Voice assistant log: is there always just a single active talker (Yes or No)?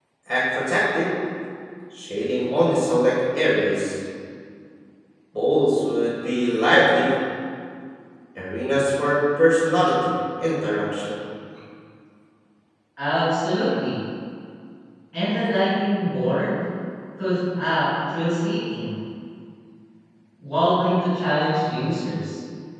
Yes